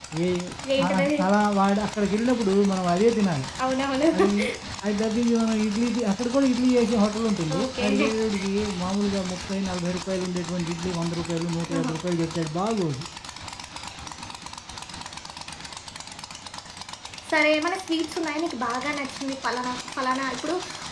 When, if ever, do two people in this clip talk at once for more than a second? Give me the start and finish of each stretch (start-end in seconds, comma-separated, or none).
none